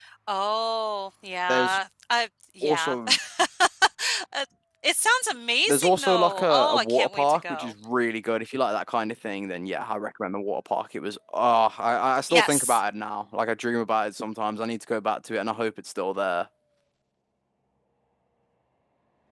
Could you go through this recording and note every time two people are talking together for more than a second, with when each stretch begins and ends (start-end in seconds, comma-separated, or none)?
5.7-7.7